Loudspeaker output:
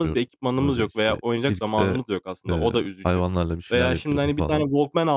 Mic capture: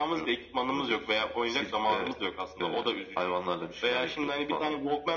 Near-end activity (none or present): none